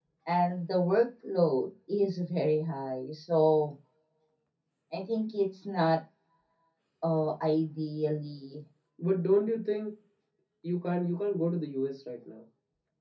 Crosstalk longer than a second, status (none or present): none